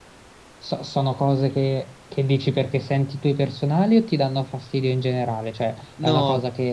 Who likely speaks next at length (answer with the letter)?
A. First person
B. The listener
A